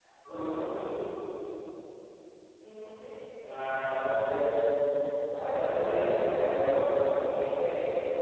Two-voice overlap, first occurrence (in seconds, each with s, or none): 5.4 s